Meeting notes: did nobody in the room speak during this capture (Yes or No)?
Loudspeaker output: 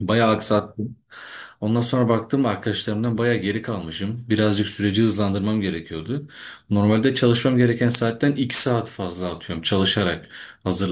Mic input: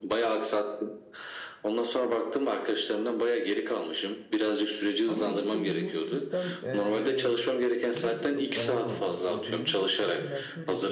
No